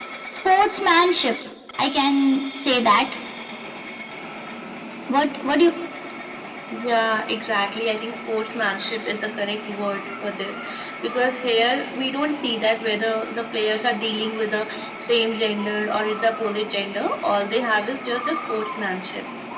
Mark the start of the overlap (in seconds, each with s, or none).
none